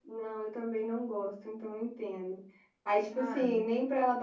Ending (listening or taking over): listening